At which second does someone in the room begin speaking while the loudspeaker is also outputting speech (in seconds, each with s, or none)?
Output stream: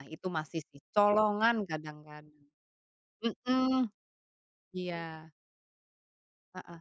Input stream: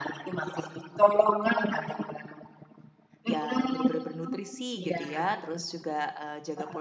3.2 s